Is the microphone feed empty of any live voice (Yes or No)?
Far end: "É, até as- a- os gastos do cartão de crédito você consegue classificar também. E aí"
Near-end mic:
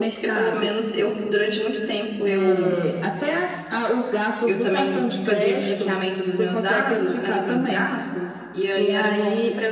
No